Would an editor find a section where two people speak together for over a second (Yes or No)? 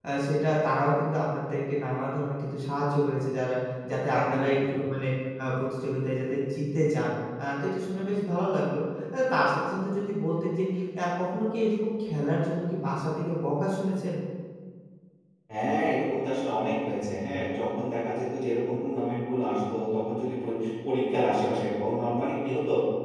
No